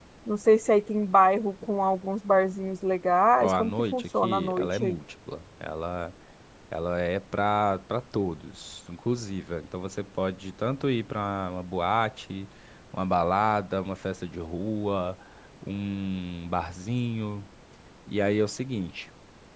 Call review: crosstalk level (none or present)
present